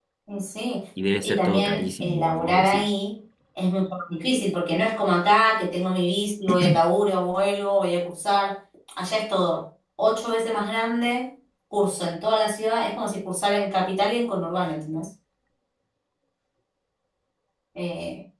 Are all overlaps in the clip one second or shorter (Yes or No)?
No